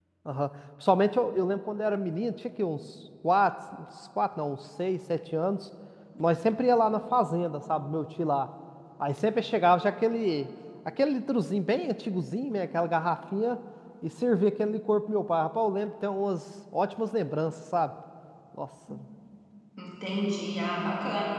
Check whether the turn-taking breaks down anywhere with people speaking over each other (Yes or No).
No